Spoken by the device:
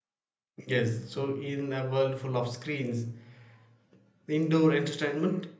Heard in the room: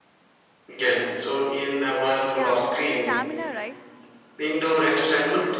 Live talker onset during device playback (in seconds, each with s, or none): 2.3 s